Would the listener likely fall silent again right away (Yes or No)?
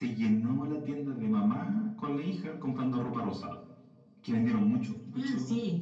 No